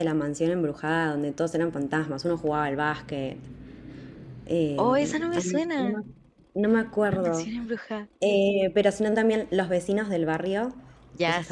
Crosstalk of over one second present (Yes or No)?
Yes